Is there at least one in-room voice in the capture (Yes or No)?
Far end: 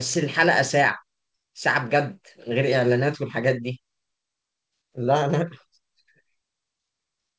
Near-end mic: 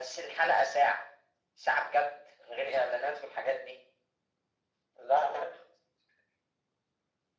No